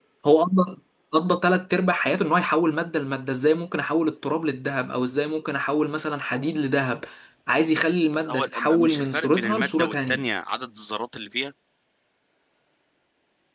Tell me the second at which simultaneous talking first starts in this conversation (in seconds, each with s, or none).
8.2 s